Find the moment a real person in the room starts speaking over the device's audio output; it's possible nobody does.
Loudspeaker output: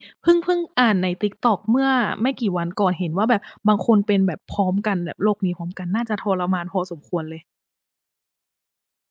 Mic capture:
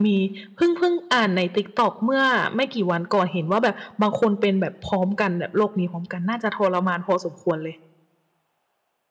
none

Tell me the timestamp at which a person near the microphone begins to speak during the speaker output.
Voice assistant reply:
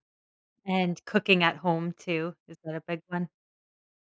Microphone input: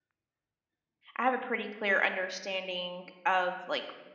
1 s

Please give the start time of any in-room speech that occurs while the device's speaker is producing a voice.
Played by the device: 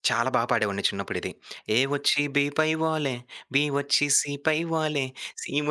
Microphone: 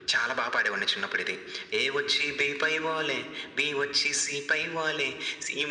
none

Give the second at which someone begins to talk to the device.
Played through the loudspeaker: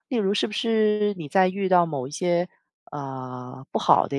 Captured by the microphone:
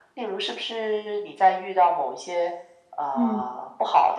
3 s

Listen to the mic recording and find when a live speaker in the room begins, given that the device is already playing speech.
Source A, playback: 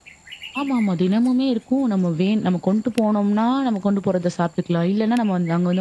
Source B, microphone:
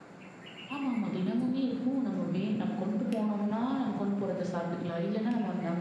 none

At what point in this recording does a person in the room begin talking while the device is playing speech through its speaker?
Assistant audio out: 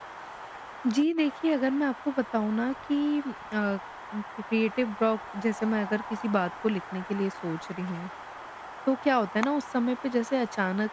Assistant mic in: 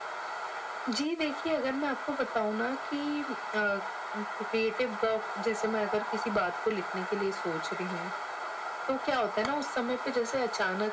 none

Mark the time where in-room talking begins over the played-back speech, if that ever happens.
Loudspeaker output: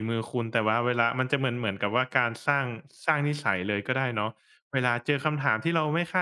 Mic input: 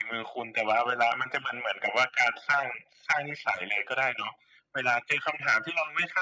none

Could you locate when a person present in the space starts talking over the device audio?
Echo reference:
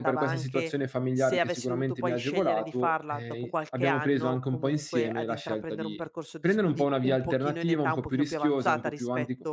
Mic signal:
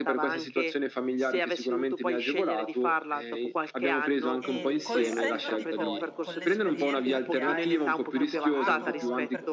4 s

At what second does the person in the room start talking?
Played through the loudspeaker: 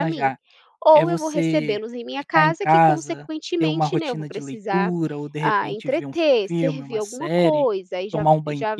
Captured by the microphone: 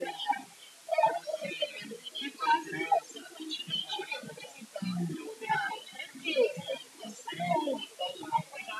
none

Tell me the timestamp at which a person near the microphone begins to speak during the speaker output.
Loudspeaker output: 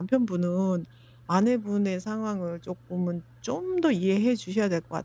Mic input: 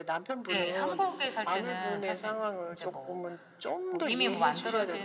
0 s

